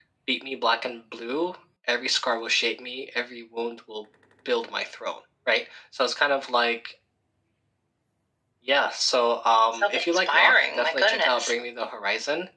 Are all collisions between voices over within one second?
No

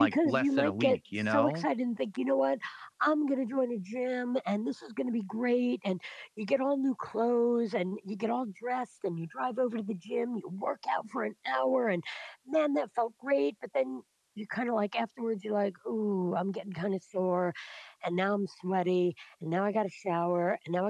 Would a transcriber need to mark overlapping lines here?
Yes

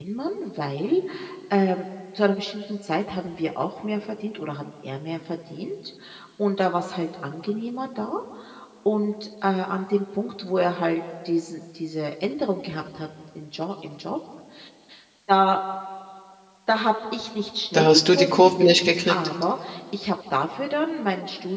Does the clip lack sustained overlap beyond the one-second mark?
No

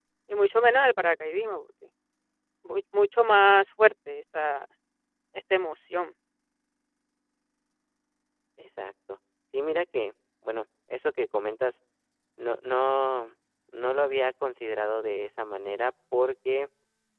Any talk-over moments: No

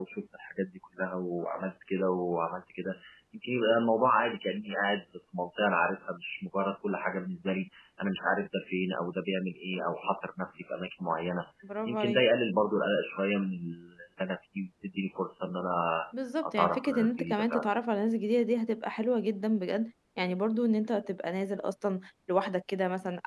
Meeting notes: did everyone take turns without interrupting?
No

